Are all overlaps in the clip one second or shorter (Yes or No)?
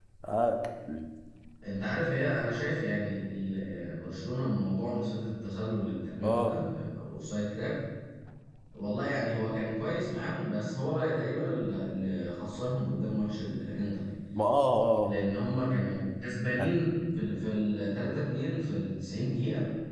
Yes